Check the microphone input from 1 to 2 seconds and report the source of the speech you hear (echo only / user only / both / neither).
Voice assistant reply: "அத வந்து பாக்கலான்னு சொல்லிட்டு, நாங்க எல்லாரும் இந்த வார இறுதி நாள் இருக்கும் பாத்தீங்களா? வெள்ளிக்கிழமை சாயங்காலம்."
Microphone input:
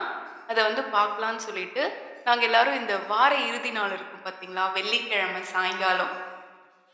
echo only